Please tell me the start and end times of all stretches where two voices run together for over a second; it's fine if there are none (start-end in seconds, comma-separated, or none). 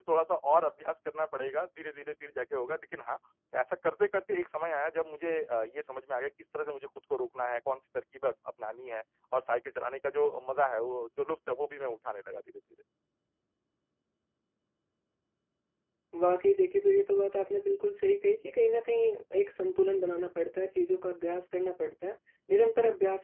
none